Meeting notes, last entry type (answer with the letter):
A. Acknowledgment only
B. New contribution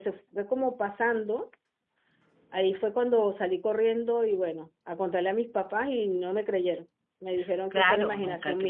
B